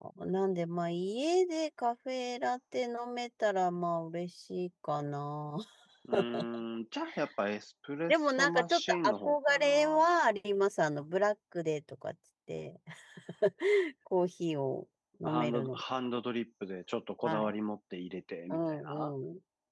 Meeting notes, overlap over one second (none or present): present